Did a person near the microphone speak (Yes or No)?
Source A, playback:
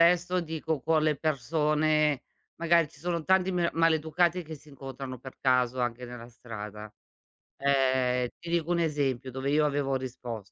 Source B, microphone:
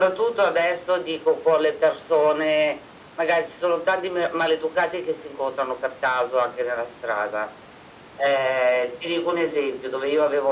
No